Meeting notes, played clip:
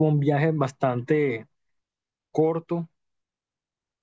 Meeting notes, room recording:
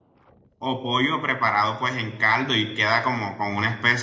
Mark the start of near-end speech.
0.6 s

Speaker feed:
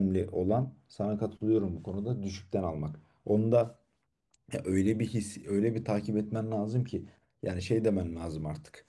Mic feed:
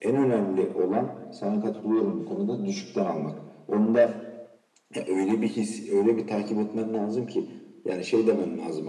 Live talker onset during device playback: none

